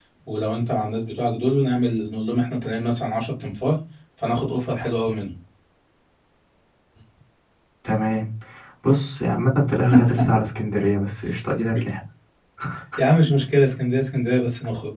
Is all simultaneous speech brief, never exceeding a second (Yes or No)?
Yes